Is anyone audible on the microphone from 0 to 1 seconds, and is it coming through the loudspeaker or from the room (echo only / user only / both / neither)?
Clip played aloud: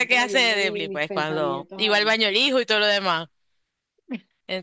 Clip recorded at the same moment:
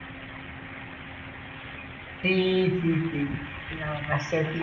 neither